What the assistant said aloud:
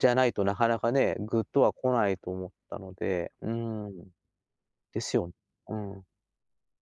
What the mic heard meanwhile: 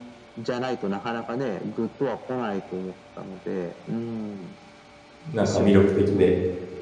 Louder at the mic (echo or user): user